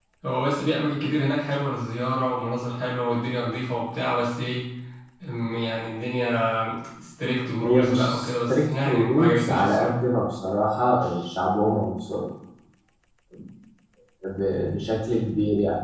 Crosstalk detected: Yes, from 7.6 s

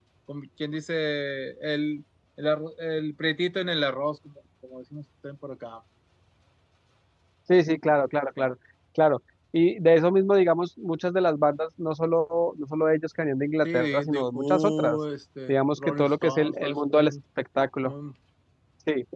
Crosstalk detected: Yes, from 13.6 s

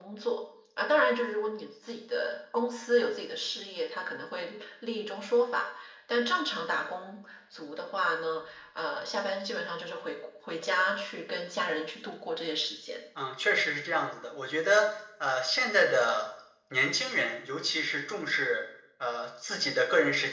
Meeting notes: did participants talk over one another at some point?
No

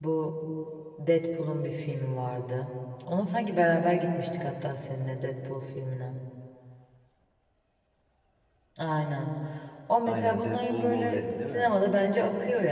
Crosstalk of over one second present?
Yes, from 10.1 s

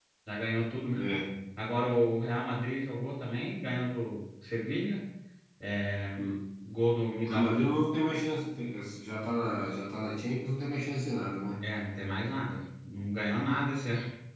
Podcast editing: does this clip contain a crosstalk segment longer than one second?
No

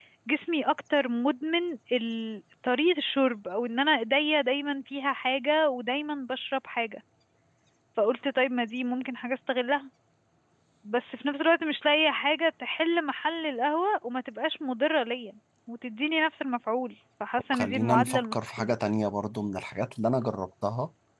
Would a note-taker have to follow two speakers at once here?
Yes, from 17.5 s

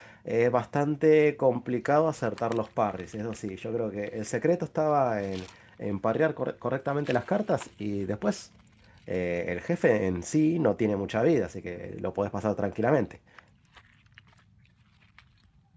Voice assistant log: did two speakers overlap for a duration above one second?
No

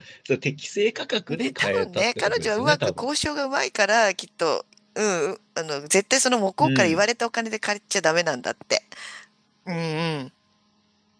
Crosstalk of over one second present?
Yes, from 1.6 s

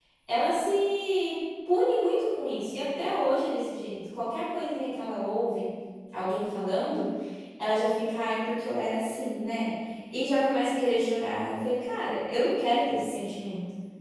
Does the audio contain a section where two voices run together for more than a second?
No

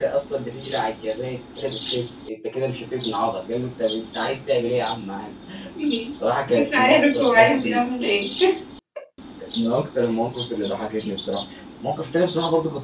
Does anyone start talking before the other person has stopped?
Yes, from 6.6 s

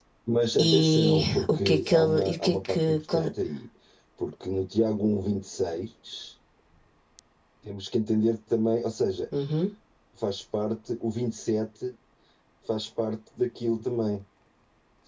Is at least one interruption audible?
Yes, from 0.7 s

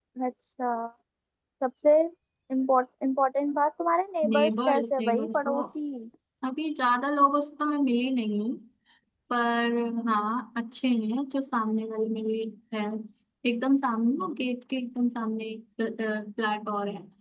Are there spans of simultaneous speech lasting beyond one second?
Yes, from 4.2 s

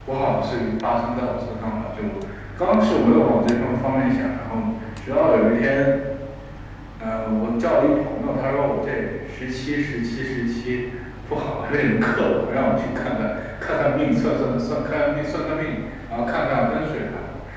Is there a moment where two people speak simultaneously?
No

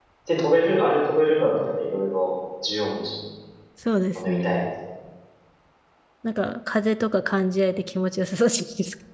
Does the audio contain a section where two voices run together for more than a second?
No

